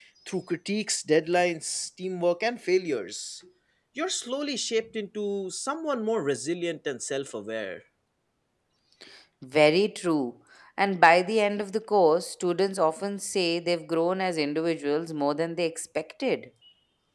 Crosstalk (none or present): none